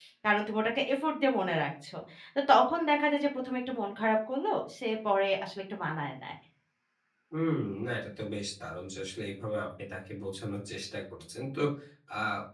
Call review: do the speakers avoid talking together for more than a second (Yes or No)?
Yes